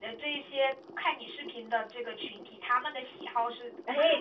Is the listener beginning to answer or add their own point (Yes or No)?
Yes